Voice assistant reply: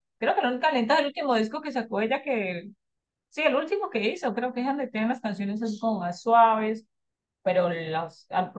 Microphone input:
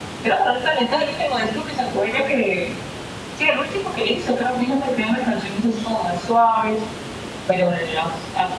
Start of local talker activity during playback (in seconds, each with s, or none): none